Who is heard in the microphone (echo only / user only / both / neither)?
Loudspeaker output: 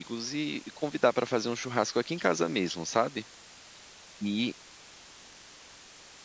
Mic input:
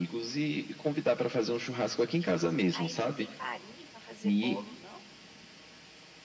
both